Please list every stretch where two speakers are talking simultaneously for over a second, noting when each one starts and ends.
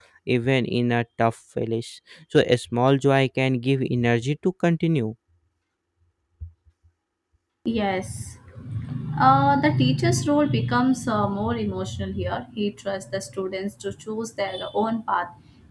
none

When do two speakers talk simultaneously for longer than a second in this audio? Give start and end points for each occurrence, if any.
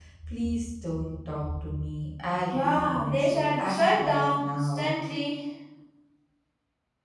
2.5-4.9

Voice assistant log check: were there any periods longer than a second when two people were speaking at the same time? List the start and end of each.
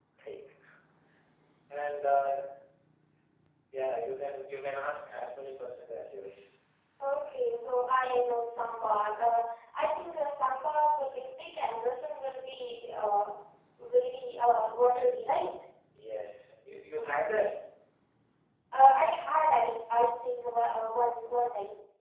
none

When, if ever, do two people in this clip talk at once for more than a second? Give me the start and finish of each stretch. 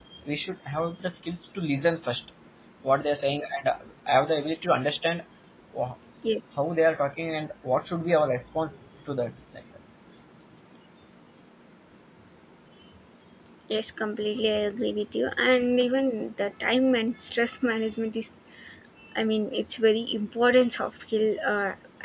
none

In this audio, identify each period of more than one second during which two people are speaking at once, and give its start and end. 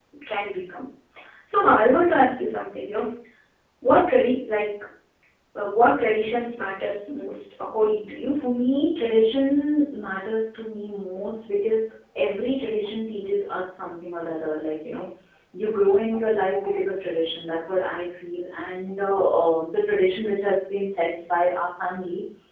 none

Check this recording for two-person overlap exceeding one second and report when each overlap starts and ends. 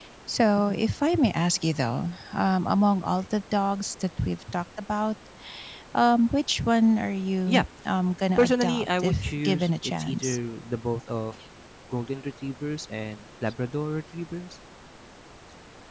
8.4-10.4

